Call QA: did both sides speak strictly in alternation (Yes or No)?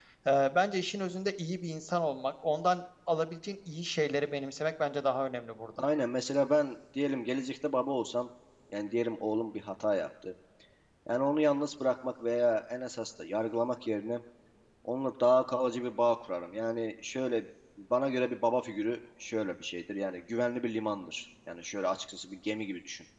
Yes